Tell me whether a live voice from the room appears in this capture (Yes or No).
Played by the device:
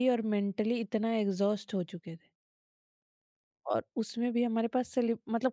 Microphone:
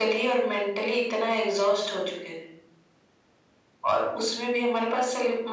No